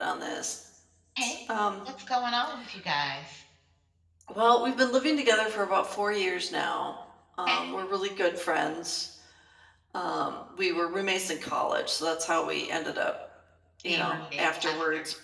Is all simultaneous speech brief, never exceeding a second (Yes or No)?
No